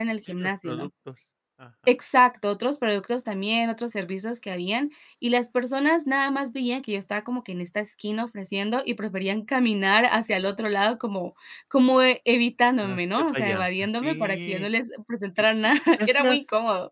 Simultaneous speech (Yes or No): Yes